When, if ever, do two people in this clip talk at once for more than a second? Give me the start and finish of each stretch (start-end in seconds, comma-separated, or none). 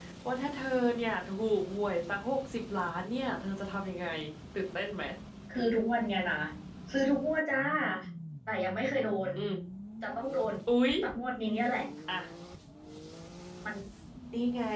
none